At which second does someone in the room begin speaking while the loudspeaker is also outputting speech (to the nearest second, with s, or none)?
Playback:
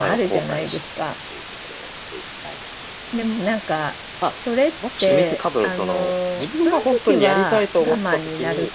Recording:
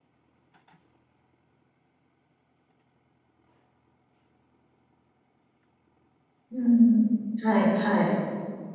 7 s